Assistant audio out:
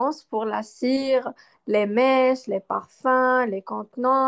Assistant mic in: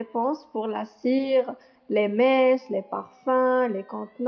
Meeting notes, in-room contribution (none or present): none